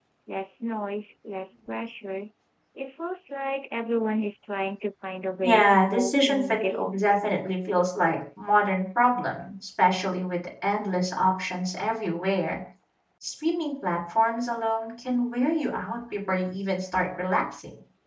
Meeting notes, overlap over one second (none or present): present